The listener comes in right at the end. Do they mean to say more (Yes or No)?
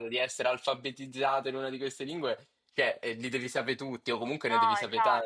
Yes